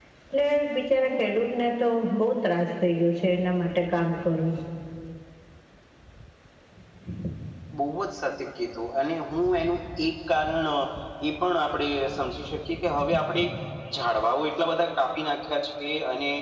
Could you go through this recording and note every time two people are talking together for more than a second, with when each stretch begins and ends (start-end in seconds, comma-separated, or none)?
none